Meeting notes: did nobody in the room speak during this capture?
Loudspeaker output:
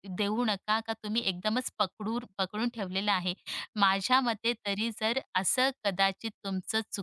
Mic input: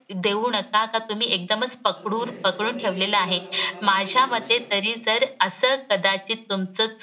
No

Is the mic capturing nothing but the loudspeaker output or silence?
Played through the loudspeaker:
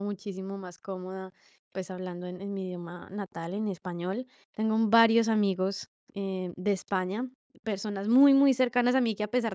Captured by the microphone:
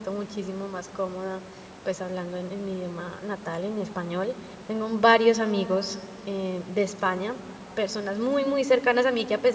Yes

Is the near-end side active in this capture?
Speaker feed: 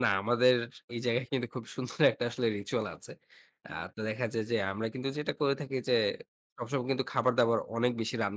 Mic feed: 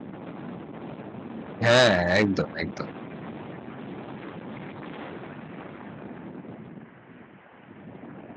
Yes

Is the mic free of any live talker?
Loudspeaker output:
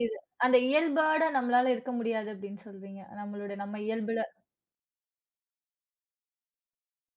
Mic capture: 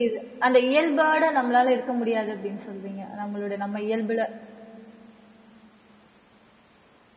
Yes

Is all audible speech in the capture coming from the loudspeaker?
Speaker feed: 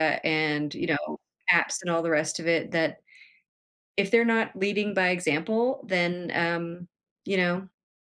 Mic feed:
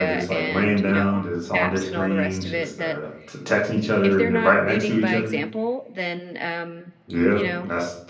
No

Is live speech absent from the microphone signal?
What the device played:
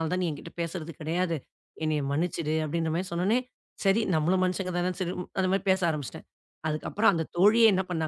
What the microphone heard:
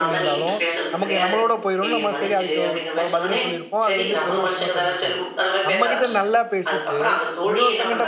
No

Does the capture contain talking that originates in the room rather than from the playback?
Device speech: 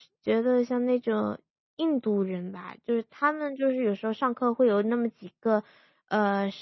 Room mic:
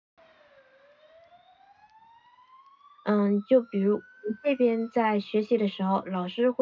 Yes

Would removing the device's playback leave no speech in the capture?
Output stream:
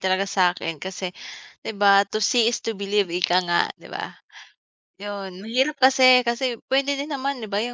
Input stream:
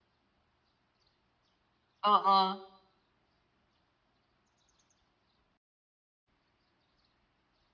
No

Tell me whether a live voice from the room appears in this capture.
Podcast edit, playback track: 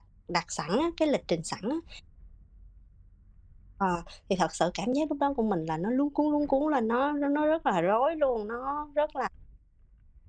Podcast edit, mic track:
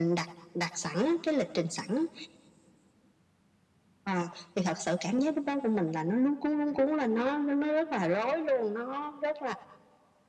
No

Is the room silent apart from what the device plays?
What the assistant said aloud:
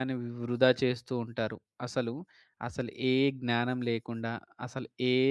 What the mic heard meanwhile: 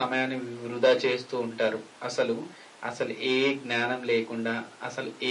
Yes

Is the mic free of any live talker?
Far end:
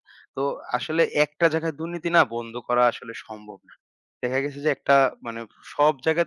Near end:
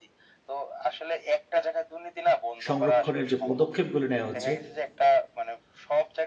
No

